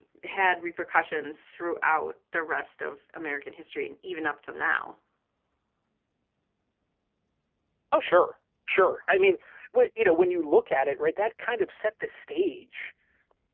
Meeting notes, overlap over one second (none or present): none